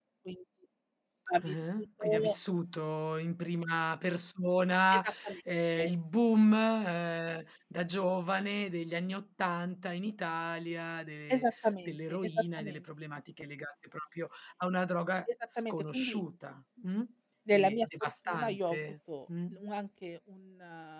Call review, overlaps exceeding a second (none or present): present